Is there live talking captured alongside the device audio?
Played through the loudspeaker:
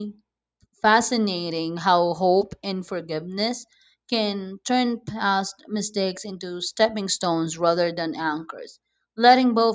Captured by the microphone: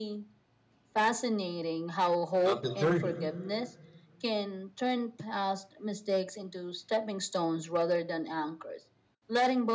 Yes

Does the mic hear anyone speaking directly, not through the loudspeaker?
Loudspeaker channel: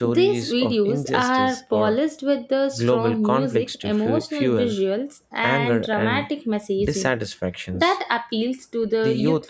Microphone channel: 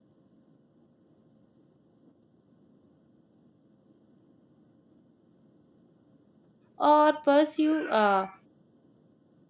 Yes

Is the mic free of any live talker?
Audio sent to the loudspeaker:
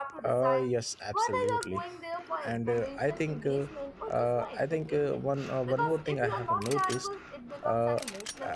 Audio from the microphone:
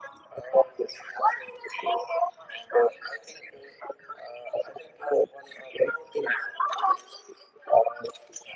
Yes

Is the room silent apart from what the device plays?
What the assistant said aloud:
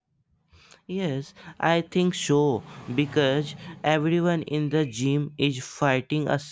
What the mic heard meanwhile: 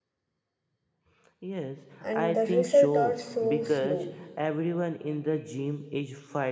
No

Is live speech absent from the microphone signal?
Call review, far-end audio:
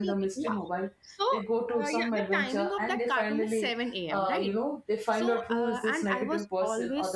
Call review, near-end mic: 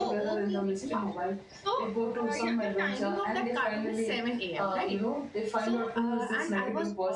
Yes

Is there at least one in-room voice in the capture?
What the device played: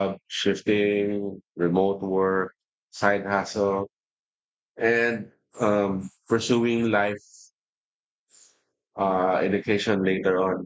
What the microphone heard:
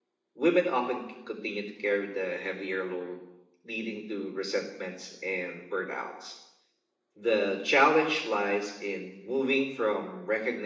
Yes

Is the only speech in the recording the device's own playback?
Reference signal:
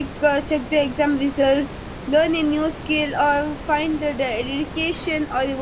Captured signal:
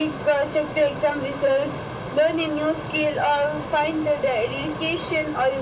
Yes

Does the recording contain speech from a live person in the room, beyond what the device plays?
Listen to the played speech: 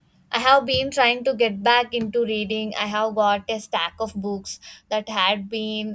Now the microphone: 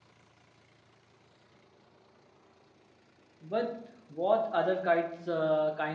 Yes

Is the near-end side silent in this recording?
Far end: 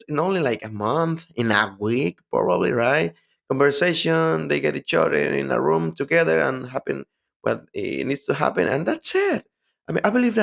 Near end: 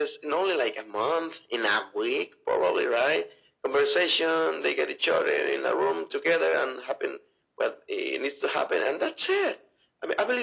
Yes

